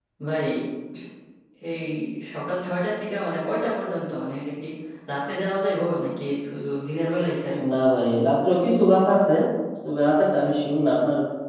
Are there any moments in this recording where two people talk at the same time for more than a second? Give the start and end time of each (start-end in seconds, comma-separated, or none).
none